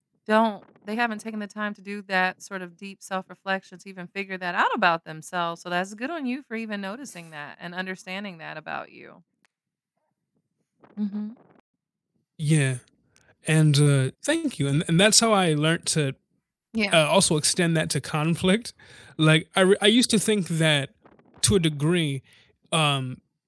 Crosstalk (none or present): none